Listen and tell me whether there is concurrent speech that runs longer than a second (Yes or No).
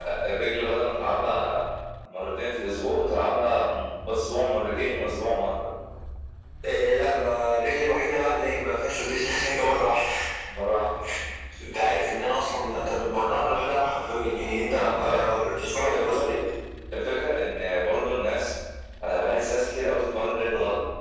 Yes